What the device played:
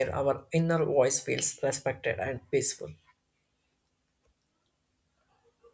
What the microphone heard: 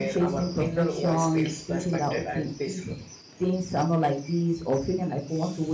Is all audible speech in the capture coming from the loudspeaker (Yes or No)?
No